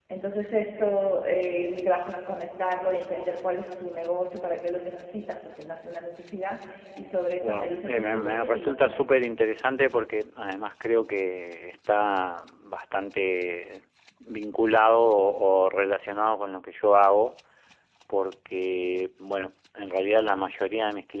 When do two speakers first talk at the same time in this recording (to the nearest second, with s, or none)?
7 s